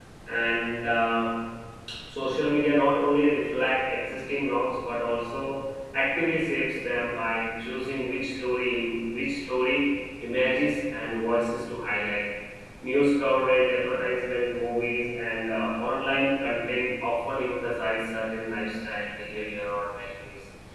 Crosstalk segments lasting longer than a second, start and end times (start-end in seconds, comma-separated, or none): none